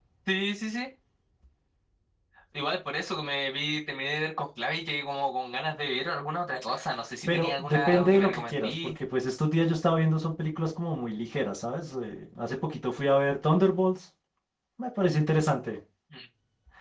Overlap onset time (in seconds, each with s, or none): 7.3 s